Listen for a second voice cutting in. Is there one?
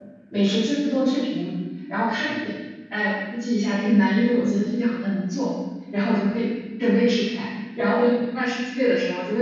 No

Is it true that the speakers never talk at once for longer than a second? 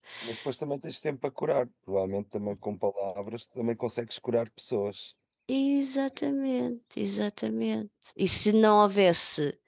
Yes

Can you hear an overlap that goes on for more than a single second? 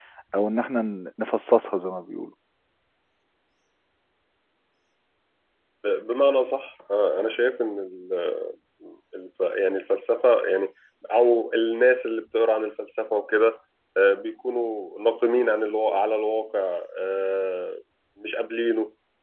No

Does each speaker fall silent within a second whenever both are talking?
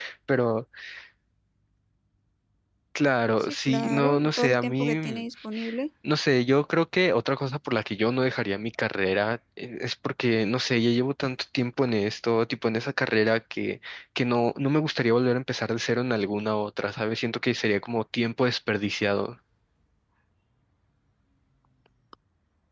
No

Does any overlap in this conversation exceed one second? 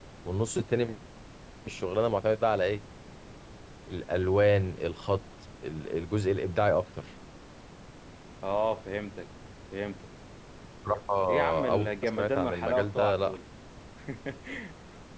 Yes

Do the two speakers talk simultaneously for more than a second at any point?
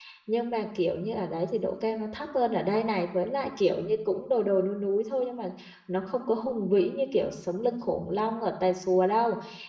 No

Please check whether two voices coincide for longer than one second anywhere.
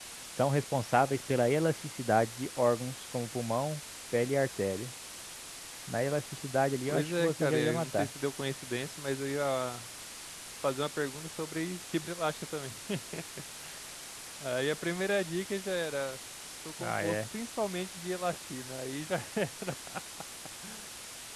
Yes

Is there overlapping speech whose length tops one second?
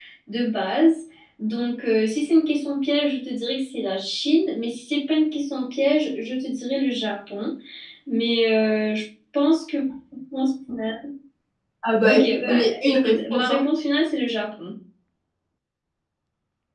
Yes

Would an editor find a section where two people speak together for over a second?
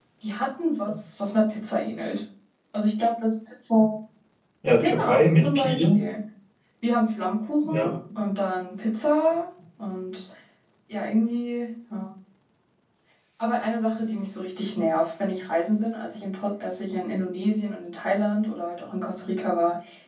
Yes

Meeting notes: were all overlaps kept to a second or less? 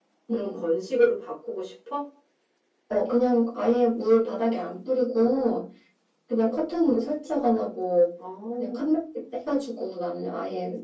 Yes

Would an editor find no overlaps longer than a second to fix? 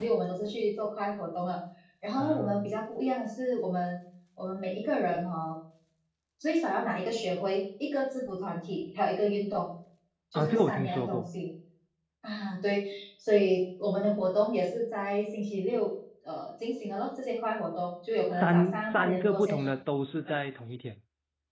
No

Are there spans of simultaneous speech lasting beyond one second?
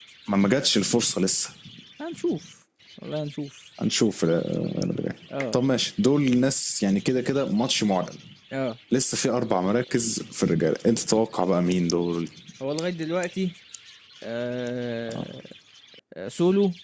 No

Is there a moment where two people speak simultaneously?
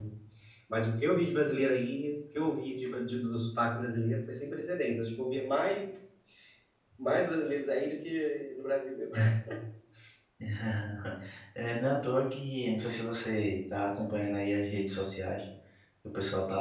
No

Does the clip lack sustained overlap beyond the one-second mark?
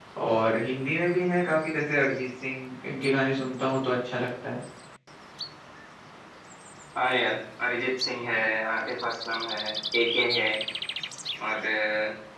Yes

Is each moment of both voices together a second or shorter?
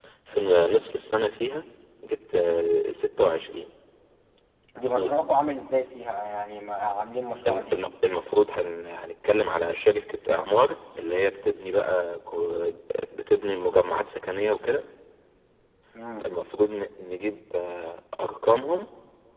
Yes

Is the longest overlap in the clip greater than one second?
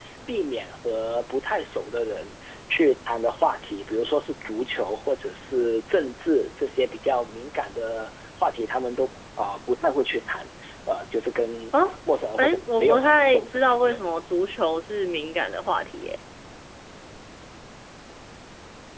Yes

